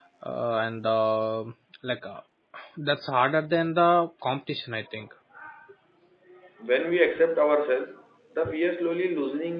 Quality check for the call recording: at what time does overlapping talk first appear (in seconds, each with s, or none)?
none